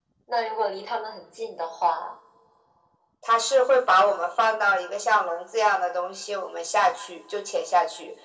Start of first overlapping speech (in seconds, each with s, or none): none